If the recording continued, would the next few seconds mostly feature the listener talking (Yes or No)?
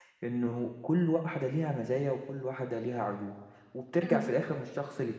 No